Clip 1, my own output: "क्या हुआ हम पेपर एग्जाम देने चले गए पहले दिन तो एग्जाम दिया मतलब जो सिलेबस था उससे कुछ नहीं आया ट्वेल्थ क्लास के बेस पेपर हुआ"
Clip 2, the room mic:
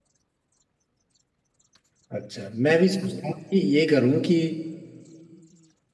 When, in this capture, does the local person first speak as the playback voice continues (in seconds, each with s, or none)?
2.1 s